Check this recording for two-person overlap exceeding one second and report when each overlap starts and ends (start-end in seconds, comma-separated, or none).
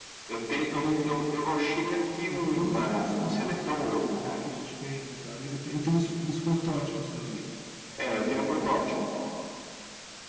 2.3-4.4